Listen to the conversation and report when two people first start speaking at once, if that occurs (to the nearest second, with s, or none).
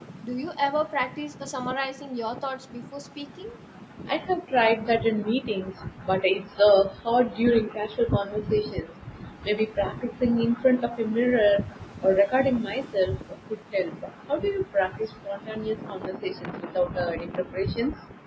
none